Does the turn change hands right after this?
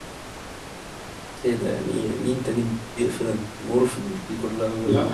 Yes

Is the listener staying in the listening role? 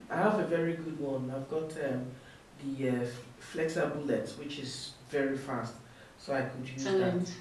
No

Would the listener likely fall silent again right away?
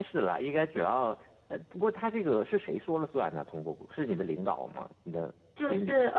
No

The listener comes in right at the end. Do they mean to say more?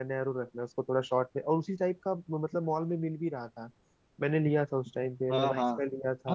Yes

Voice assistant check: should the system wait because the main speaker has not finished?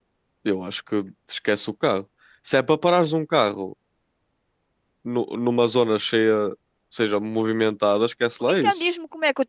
No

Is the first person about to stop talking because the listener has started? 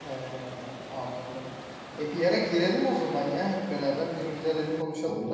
Yes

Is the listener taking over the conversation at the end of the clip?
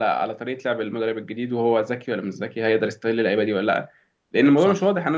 No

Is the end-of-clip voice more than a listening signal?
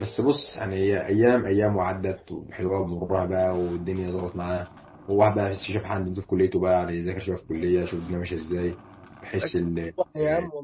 Yes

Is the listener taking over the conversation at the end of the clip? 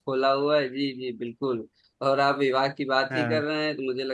No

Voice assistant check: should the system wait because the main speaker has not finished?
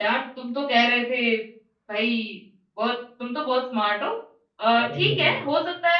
Yes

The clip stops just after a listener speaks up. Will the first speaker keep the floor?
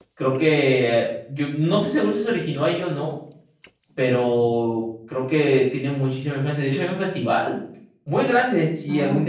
Yes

